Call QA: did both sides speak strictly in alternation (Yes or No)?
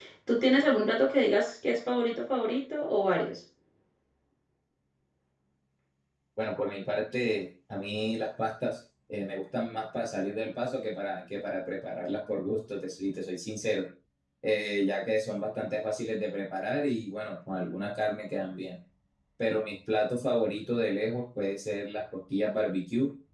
Yes